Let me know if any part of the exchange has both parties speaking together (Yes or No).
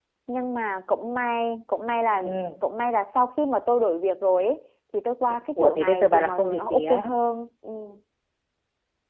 Yes